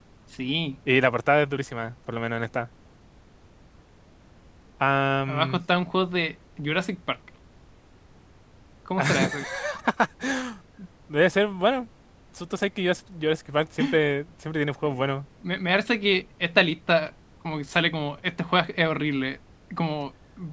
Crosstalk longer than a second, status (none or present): none